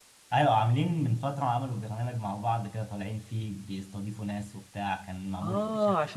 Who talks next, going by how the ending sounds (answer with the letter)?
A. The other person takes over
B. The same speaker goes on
A